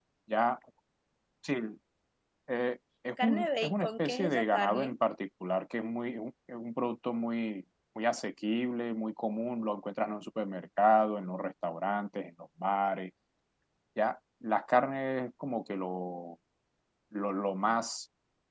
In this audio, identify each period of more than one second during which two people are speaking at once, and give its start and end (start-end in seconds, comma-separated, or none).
3.2-5.0